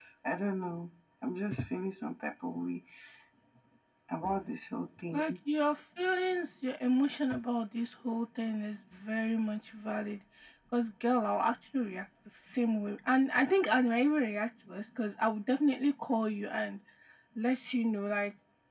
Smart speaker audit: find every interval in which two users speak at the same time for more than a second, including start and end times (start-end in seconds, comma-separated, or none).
none